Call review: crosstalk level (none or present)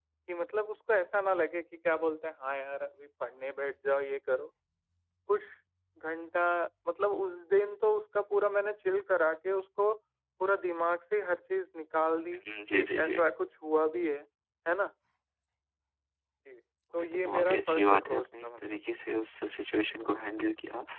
present